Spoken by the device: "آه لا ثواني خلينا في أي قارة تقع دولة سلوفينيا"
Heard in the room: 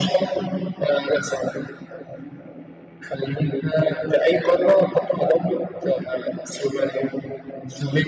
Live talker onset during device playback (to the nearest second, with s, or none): none